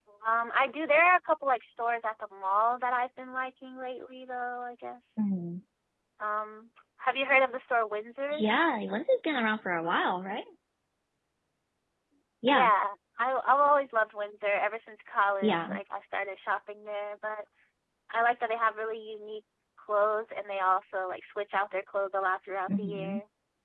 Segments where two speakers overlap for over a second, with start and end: none

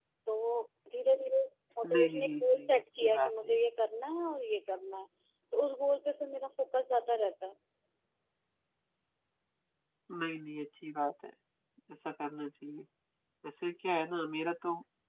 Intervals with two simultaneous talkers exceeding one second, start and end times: 1.9-3.6

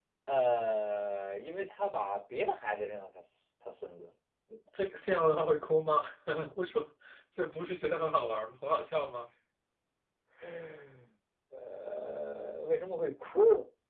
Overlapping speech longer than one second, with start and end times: none

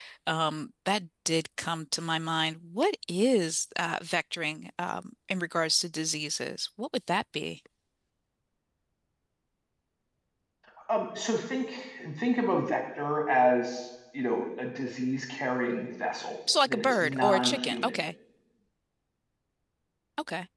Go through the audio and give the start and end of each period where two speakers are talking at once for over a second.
16.7-18.0

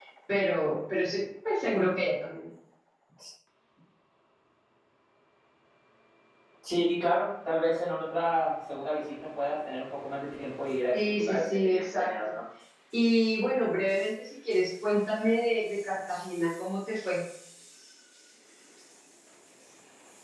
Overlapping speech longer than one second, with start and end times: 10.9-12.1

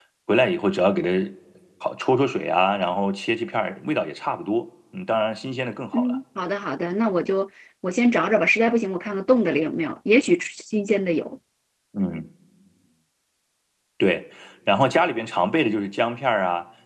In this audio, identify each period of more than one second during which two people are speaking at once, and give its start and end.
none

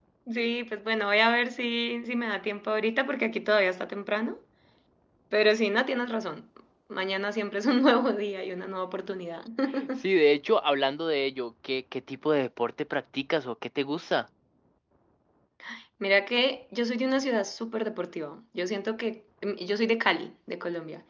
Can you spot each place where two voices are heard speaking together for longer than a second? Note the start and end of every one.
none

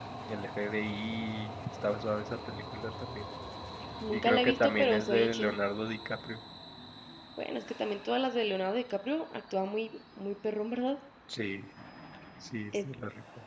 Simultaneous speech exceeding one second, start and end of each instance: 4.1-5.5

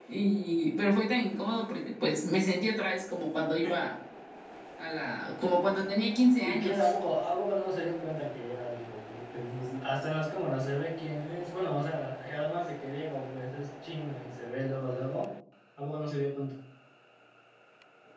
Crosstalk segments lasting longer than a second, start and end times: none

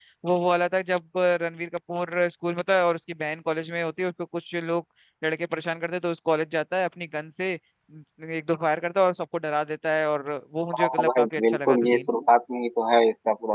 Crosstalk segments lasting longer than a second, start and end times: 10.7-12.1

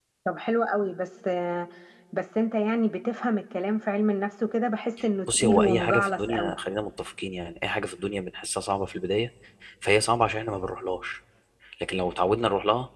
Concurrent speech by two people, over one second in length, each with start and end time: 5.3-6.5

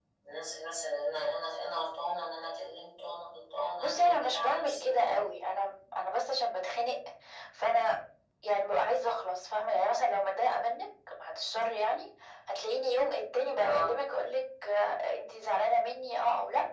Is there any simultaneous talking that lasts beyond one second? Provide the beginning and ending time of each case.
3.8-5.2

